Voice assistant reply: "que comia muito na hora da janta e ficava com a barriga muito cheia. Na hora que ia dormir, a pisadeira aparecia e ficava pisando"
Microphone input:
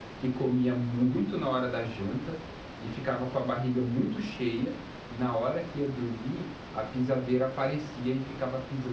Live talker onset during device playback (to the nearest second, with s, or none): none